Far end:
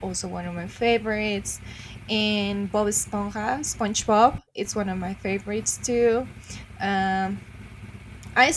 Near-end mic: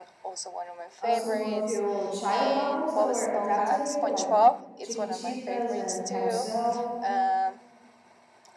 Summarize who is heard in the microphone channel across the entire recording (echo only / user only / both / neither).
both